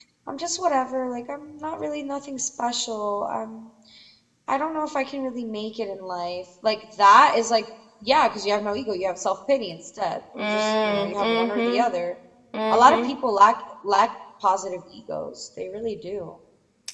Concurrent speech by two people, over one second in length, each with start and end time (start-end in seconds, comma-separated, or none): 10.4-11.8